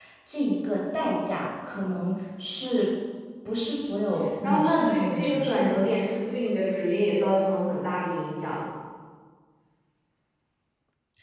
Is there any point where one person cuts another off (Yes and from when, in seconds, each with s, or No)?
Yes, from 4.4 s